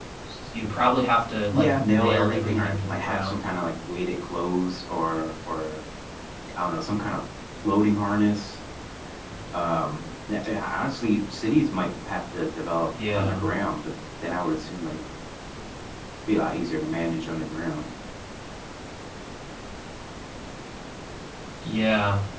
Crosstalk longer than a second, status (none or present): present